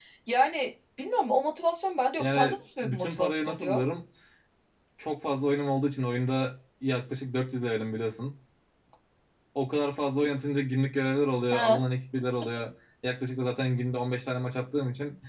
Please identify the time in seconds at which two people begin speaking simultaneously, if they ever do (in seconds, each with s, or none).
2.2 s